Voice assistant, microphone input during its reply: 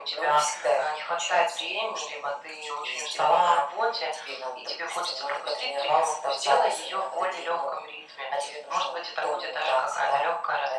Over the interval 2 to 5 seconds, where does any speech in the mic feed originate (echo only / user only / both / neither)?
echo only